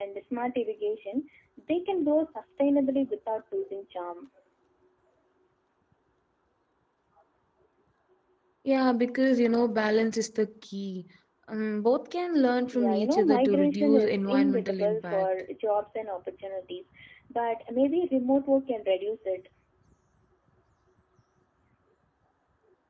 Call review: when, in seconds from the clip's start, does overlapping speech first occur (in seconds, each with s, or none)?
12.7 s